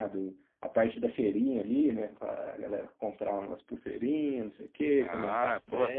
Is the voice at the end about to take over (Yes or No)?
Yes